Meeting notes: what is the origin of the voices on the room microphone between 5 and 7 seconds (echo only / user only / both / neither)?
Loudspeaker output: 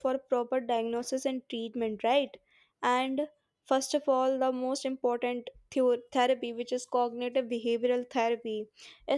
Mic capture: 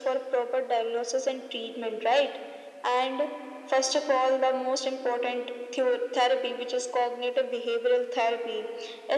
echo only